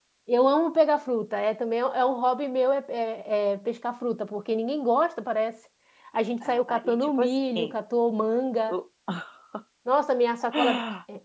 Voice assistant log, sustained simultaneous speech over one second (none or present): present